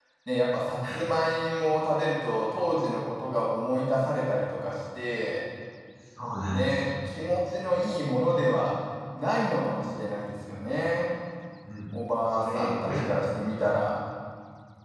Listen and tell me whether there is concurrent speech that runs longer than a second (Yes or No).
Yes